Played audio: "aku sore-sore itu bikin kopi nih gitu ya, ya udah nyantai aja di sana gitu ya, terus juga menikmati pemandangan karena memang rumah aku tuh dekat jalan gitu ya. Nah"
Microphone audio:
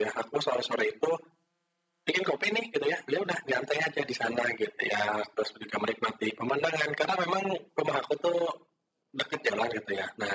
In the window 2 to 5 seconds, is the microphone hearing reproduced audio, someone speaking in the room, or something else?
echo only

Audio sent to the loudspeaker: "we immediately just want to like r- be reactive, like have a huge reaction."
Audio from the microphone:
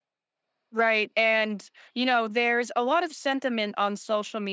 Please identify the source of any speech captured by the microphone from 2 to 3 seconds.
user only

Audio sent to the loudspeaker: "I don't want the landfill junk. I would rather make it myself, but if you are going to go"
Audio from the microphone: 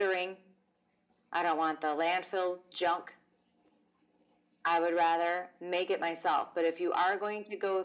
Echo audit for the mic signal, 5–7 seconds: echo only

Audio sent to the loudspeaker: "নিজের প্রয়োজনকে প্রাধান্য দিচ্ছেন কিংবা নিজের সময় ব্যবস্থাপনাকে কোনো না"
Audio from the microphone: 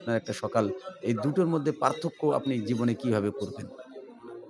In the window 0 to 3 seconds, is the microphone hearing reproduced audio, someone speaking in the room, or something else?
both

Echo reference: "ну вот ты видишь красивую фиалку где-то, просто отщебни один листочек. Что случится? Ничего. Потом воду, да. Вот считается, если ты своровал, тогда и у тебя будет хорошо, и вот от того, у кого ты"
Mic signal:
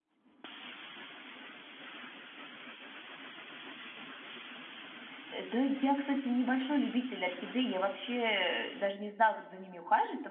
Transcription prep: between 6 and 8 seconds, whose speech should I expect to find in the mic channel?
user only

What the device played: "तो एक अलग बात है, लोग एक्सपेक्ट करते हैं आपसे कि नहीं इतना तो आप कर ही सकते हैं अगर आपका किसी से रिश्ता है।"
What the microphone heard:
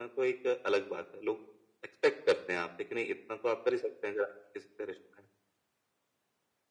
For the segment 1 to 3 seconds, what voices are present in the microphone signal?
echo only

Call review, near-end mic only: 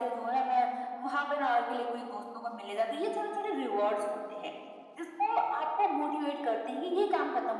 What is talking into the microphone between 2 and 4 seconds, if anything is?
echo only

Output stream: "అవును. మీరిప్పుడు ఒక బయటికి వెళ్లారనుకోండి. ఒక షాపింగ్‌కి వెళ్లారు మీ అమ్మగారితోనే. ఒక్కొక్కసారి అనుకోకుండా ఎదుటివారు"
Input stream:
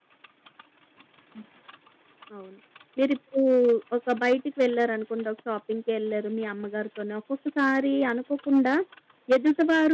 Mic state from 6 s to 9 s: echo only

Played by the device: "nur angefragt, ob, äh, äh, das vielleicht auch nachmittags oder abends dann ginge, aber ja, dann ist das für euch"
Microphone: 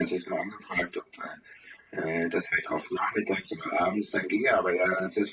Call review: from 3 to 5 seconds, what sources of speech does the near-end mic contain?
echo only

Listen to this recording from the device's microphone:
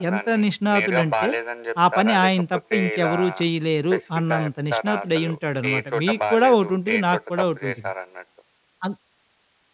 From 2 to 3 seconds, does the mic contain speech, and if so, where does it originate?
both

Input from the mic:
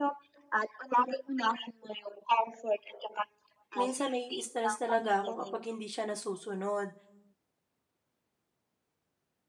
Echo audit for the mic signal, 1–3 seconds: echo only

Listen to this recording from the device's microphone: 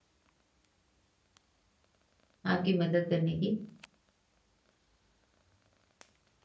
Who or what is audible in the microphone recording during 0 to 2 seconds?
neither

